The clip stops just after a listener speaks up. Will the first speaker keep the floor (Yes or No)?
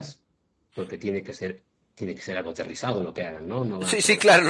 No